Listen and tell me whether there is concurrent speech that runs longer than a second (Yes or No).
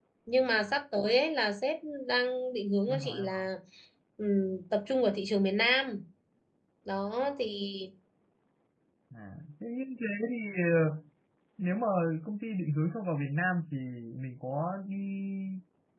No